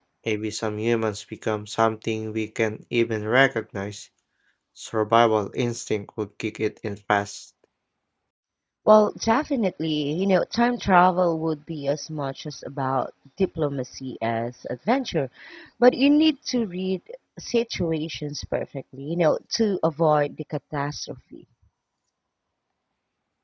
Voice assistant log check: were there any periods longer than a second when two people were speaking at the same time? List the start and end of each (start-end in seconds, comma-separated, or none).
none